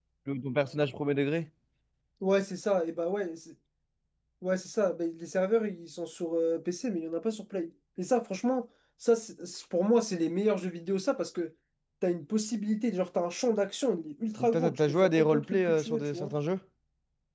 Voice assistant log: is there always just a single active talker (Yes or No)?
No